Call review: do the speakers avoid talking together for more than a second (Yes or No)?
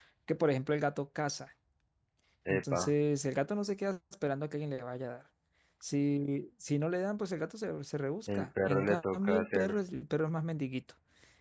No